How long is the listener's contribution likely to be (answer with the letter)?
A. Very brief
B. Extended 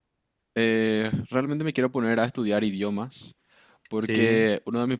A